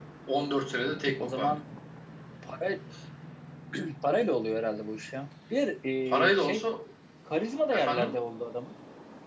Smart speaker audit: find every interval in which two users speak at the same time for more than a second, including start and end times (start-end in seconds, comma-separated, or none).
none